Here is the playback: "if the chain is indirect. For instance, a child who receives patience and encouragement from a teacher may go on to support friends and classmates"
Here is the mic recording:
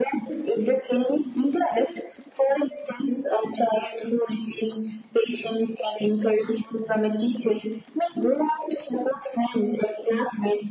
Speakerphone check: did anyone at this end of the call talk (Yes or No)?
No